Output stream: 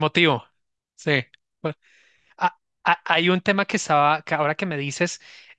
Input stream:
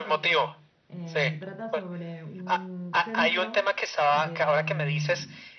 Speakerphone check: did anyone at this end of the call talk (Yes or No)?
Yes